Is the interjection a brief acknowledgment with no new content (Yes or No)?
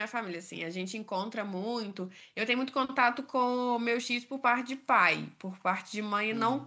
Yes